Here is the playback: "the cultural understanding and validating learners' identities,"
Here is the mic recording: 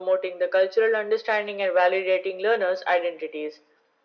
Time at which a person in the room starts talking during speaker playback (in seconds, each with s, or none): none